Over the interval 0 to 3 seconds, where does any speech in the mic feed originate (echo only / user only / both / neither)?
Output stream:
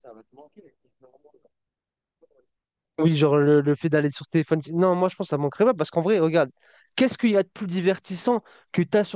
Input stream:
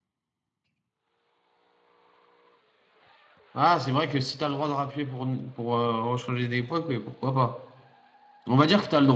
neither